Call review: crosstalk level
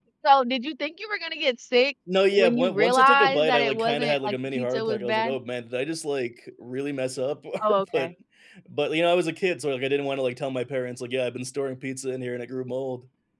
present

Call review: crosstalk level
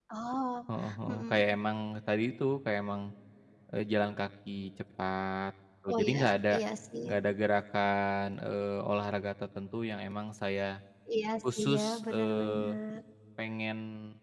present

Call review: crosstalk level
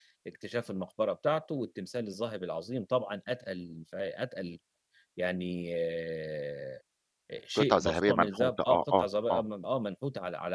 present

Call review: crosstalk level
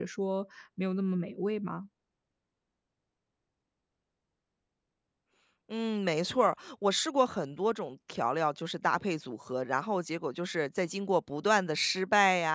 none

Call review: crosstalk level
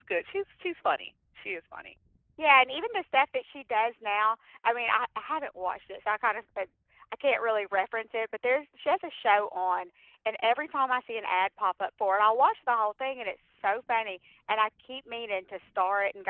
none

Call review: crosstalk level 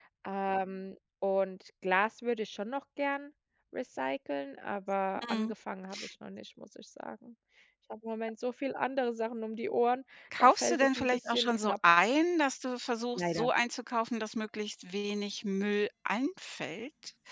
present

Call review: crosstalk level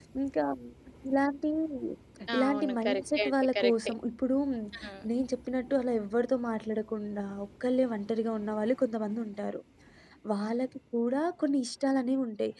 present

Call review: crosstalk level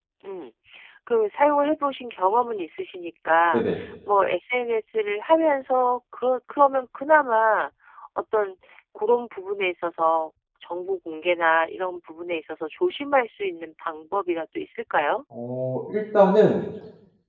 none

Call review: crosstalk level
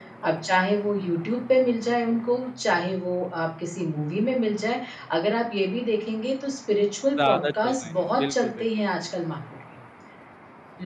present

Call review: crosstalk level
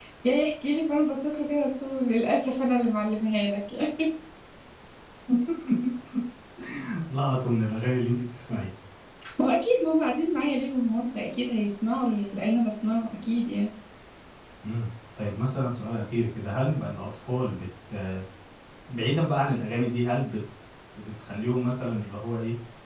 none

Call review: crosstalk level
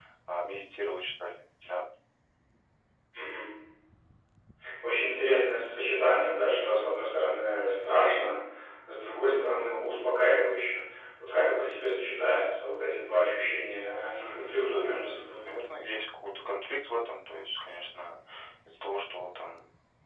present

